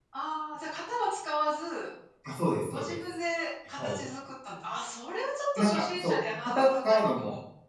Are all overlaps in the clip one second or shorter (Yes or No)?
No